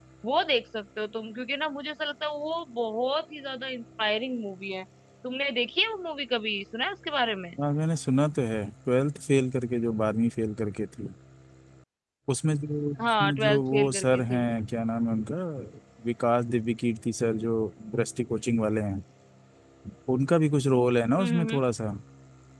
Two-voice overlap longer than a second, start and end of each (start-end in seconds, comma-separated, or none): 13.0-14.4